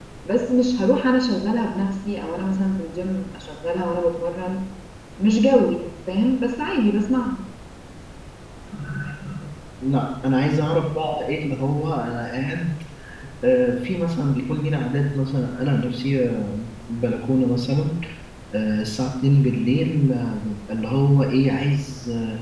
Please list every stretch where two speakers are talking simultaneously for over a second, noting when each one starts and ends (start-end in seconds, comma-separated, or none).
none